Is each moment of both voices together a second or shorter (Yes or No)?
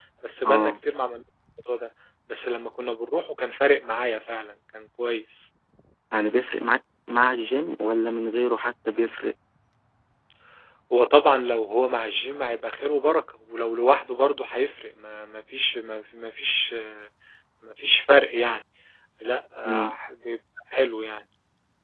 Yes